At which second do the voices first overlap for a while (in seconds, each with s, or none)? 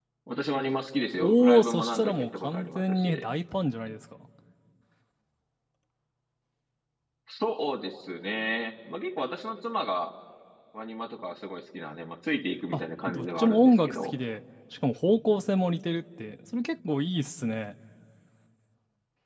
1.2 s